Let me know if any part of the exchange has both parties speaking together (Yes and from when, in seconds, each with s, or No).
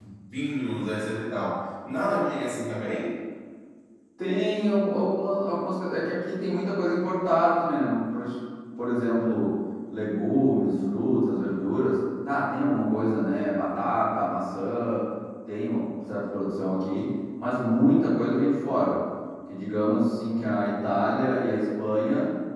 No